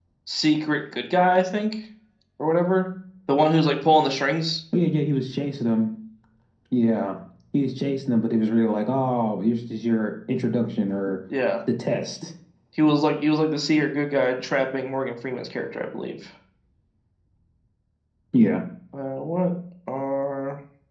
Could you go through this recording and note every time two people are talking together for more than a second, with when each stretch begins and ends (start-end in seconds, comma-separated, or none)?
none